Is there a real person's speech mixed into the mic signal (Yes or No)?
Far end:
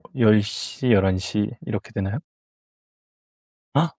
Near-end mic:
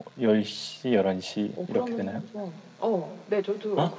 Yes